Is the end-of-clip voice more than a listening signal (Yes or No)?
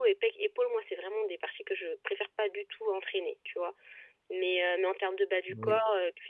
No